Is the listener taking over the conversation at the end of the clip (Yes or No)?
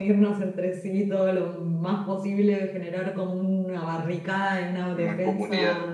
No